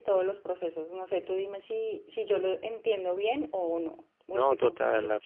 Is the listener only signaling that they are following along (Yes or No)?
No